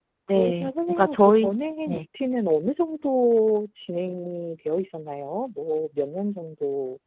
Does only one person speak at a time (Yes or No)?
No